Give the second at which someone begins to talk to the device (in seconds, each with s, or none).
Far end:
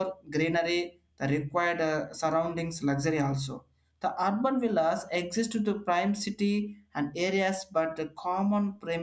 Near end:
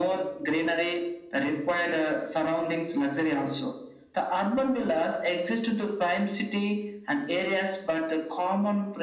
none